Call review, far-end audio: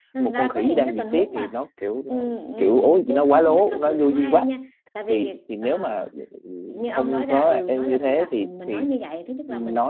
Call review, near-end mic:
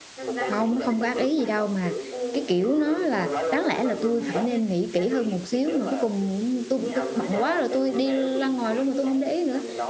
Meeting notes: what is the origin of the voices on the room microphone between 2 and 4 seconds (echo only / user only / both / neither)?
both